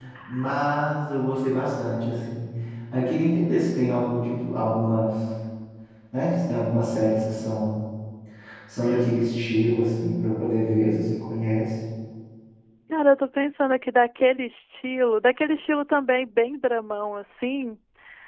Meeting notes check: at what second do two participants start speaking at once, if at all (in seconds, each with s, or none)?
none